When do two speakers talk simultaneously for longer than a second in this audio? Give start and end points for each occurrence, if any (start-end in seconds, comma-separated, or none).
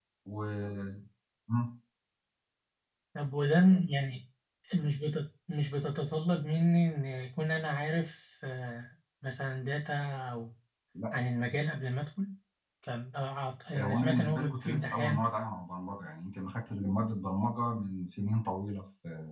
13.8-15.2